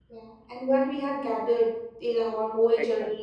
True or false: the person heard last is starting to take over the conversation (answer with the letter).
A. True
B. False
A